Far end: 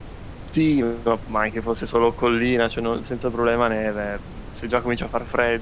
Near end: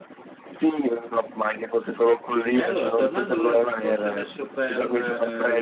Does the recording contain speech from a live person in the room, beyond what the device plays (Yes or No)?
Yes